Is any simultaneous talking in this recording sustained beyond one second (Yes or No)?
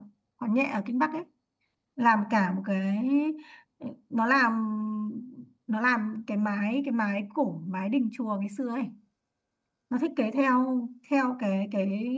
No